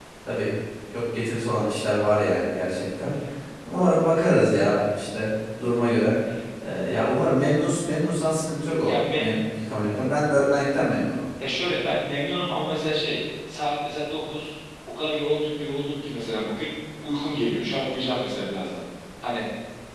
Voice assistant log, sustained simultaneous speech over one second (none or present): none